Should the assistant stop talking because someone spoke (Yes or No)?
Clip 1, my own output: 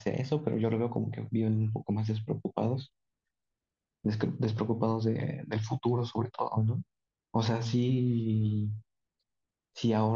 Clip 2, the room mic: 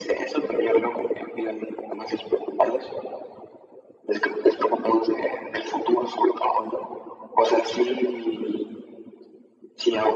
No